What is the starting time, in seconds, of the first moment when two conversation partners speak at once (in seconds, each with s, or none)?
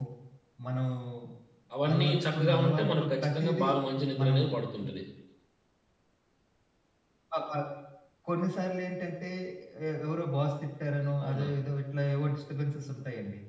1.9 s